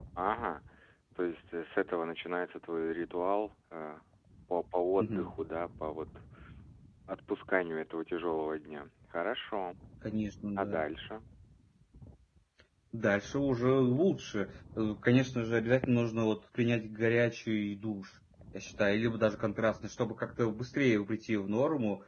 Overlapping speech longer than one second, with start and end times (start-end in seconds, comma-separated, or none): none